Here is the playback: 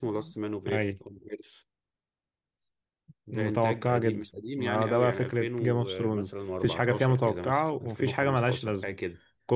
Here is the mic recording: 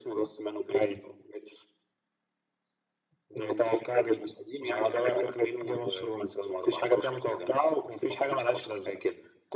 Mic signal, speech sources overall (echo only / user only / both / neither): echo only